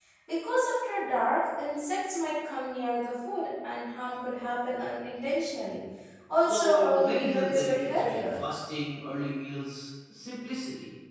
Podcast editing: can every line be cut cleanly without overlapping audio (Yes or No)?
No